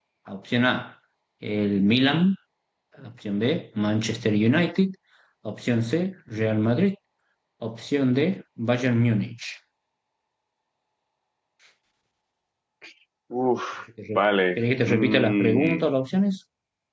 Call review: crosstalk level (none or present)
present